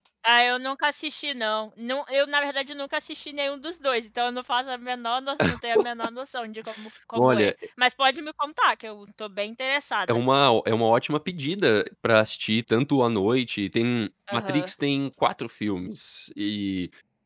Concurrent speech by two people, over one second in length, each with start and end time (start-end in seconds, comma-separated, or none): none